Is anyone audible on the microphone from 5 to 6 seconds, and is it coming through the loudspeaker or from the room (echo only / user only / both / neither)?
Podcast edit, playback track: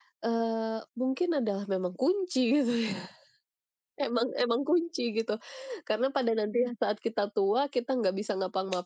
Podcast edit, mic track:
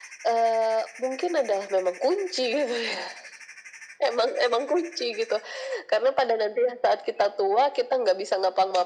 echo only